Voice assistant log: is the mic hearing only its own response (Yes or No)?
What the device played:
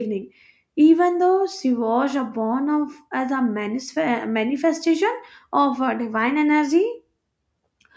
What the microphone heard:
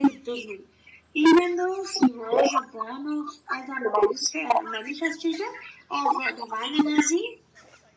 Yes